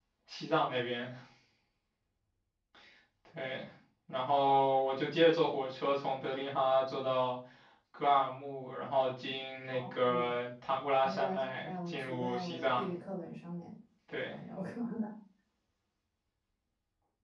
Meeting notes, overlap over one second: present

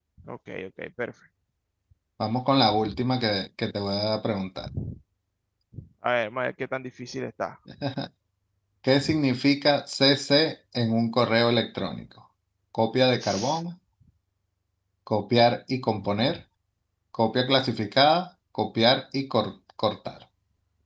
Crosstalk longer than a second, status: none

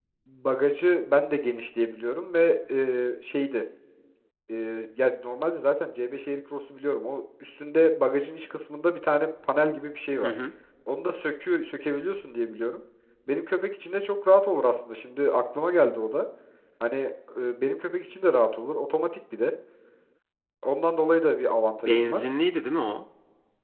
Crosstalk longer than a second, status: none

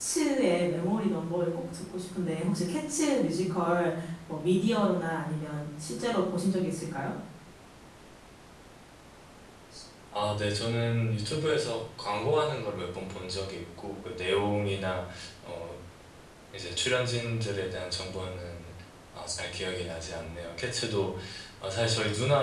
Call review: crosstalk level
none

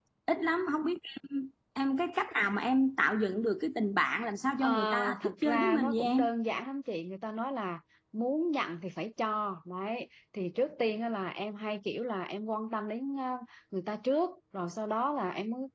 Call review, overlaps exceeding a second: present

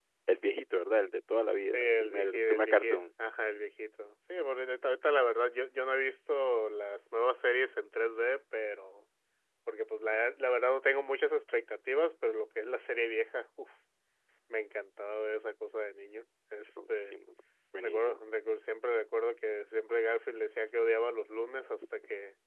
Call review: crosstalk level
present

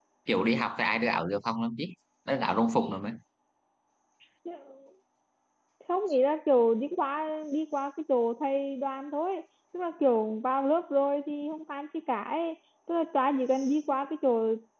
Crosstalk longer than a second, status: none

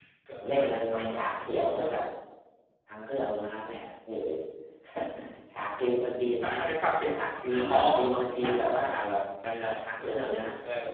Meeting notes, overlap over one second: present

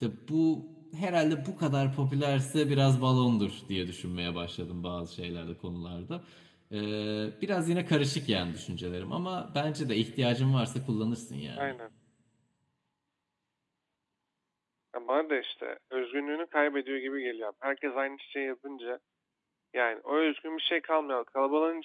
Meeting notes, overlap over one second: none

